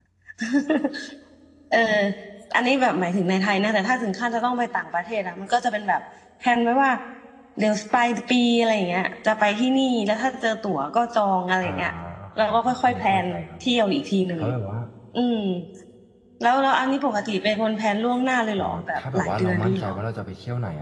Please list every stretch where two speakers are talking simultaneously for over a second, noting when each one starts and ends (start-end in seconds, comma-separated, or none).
12.4-13.8, 18.6-19.9